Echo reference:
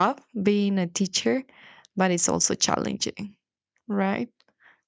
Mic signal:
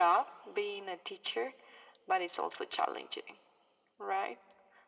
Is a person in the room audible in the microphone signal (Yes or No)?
No